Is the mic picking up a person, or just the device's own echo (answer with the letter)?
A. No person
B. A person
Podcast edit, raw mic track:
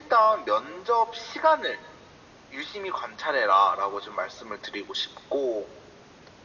A